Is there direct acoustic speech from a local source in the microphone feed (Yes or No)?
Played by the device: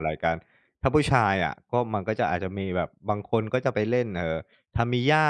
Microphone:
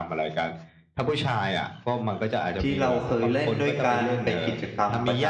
Yes